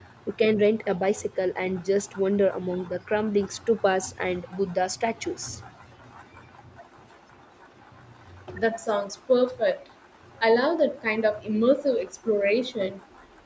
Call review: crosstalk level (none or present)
none